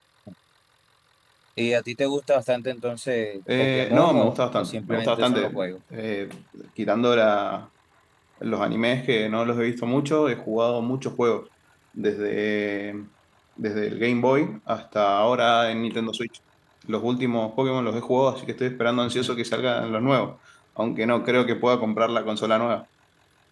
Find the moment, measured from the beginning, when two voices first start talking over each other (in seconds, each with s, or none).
3.6 s